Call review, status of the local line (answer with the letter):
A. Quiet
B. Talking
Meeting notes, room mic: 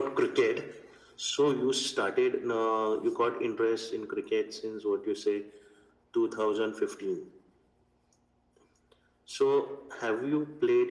A